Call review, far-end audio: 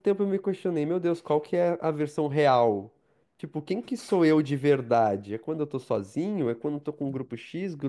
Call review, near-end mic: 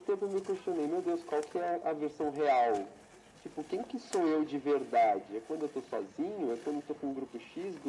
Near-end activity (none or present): none